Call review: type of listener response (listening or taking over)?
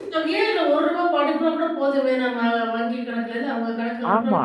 taking over